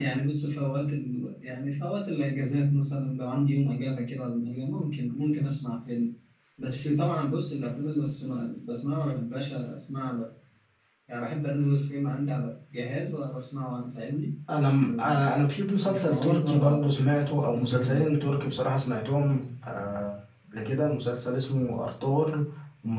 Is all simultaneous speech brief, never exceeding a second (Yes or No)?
No